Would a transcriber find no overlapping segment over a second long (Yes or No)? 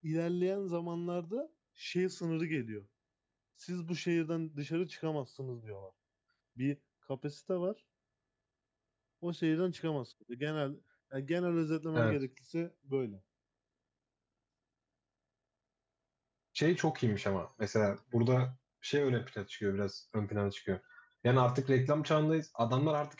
Yes